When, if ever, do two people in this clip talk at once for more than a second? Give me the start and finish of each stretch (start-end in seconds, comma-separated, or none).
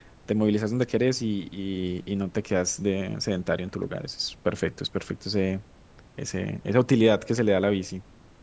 none